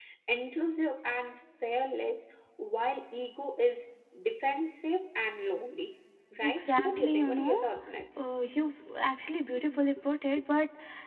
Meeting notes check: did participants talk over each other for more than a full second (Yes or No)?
Yes